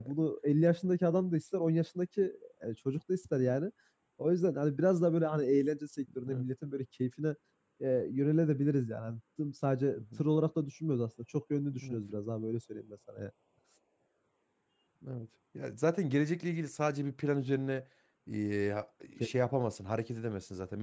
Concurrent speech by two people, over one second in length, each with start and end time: none

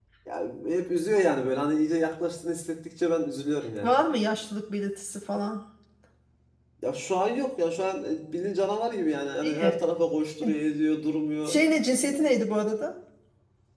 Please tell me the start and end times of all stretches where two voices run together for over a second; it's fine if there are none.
none

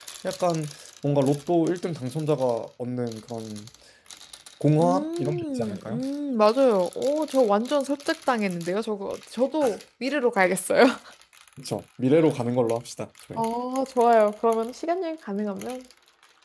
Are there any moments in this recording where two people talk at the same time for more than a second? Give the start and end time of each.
4.8-6.0

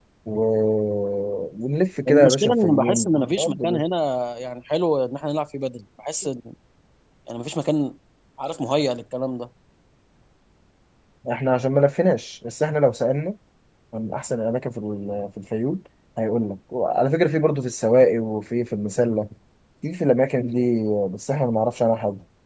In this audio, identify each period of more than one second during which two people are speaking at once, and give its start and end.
2.1-3.8

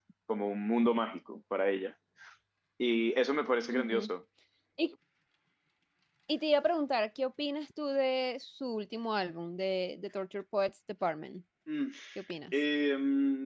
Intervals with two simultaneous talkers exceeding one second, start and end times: none

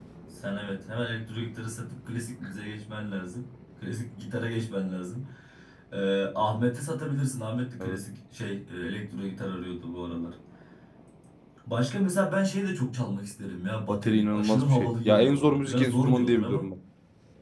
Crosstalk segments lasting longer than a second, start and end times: 13.9-16.6

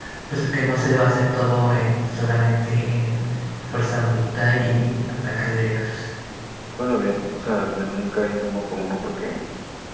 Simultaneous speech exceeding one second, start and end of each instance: none

